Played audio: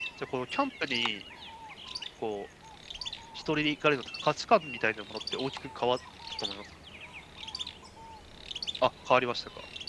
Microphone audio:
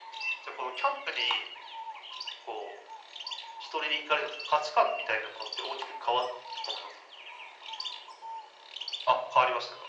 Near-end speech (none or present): none